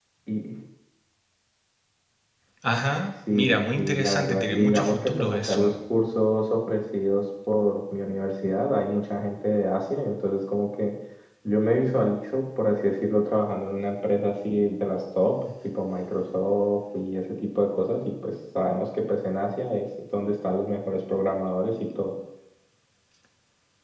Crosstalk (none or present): present